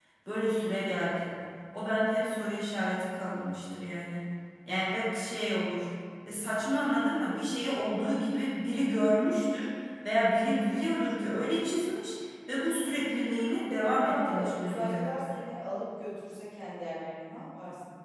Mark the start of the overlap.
13.7 s

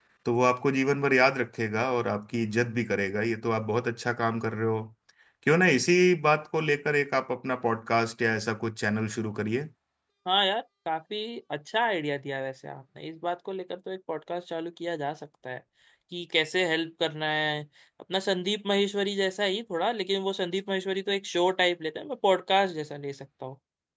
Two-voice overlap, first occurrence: none

